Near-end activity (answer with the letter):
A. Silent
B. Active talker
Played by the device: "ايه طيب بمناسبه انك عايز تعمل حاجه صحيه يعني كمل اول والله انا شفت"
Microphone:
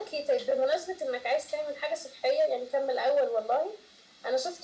A